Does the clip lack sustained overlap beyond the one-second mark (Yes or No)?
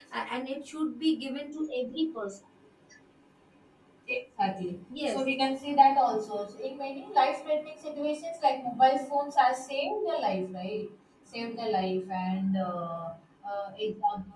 Yes